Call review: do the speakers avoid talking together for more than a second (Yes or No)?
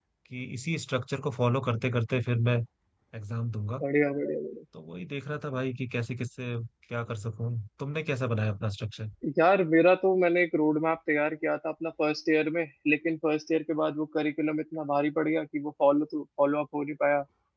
Yes